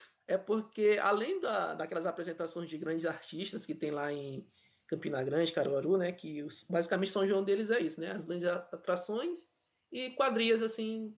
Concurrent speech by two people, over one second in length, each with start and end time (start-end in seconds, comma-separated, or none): none